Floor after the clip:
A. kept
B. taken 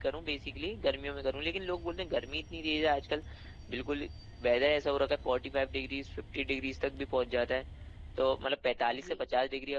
A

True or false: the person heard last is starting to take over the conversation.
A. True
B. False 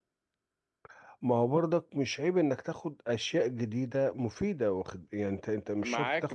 A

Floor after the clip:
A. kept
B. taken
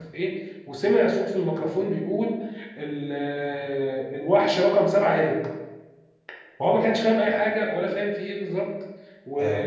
A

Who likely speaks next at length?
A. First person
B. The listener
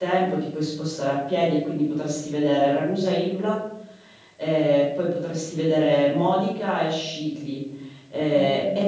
A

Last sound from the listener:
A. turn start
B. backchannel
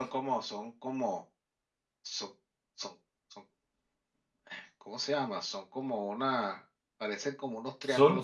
A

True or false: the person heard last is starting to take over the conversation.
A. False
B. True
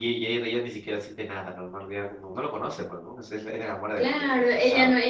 B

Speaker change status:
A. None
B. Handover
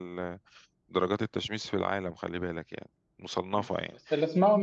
B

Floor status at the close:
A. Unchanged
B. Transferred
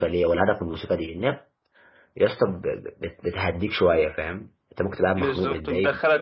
B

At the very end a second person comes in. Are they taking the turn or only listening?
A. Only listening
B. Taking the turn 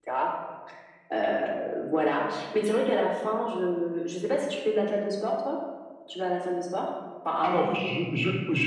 B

